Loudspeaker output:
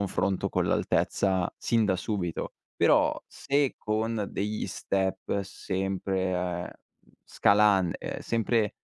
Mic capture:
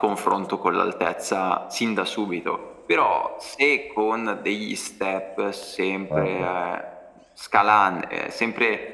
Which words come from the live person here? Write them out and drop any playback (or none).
Mamma m